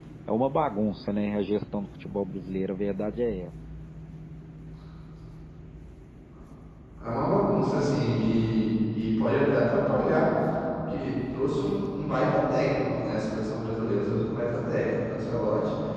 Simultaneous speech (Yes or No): No